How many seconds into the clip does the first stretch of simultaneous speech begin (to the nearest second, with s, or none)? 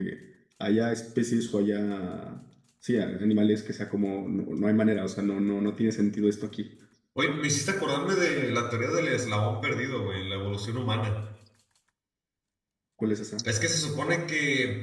none